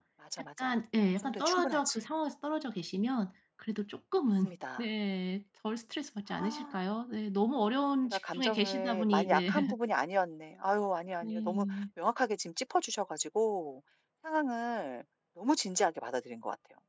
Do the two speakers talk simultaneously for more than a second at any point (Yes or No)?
Yes